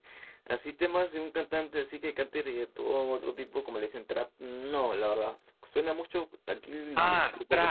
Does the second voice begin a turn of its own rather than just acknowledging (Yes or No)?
Yes